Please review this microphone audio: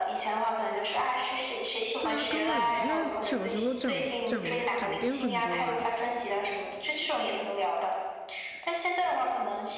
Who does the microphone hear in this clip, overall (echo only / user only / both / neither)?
both